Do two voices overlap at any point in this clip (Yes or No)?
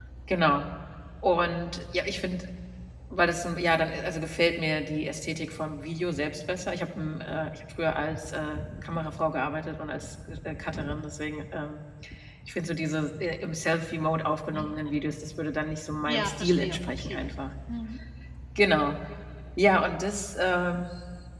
Yes